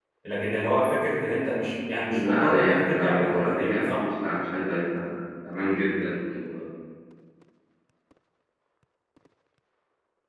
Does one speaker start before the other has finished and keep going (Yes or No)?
Yes